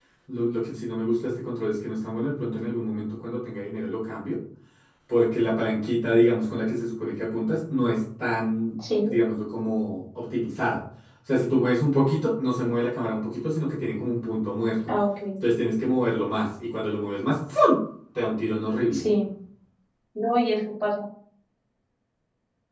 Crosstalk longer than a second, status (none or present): none